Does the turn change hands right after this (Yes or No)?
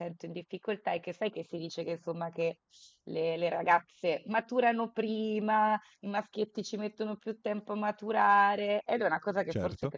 No